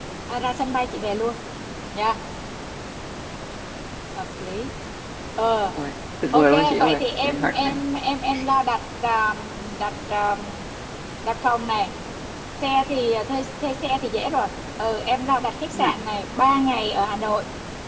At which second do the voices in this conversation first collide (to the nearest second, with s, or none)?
6 s